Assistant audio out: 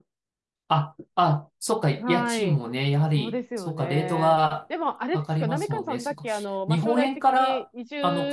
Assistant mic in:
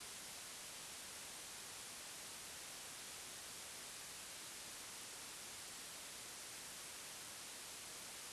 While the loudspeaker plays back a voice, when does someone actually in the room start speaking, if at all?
none

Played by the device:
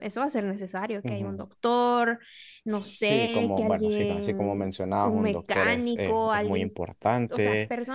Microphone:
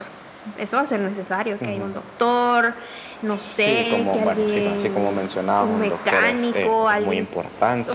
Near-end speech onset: none

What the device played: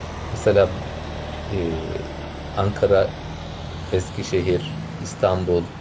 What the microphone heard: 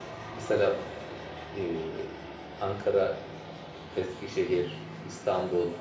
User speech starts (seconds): none

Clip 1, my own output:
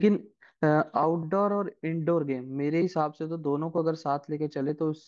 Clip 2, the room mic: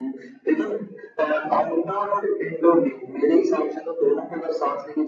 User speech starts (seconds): none

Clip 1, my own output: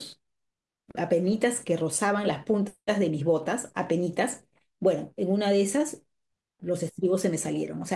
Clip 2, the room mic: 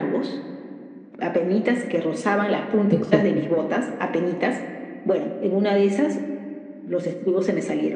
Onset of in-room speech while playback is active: 2.9 s

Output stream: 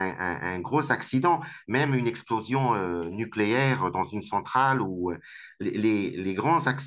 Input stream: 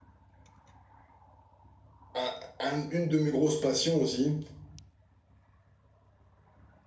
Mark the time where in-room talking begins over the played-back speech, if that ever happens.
2.1 s

